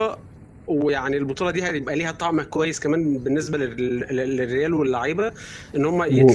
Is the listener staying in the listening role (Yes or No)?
Yes